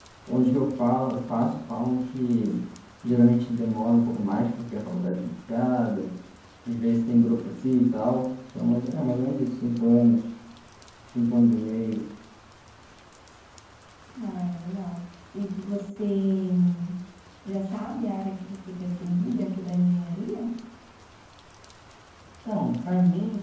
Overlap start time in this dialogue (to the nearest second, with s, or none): none